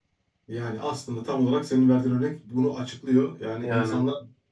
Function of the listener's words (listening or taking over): listening